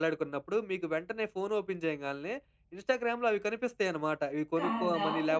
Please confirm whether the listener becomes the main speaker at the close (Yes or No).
No